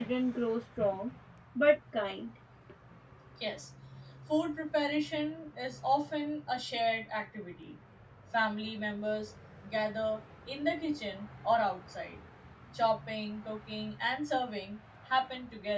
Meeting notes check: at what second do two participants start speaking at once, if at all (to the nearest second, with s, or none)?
none